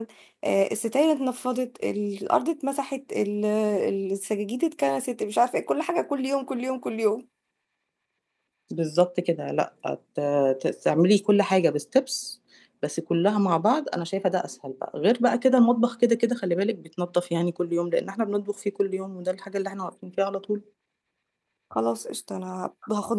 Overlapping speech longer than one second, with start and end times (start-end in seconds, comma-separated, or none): none